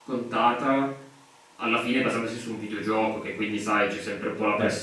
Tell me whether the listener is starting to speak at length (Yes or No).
No